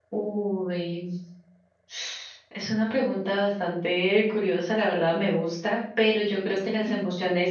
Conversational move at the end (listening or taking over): listening